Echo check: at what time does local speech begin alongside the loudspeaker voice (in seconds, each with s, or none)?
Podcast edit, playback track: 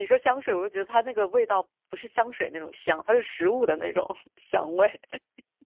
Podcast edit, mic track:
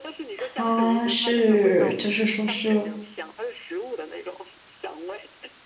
0.4 s